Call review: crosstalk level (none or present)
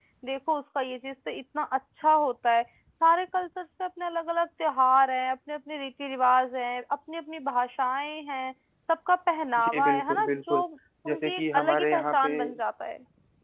present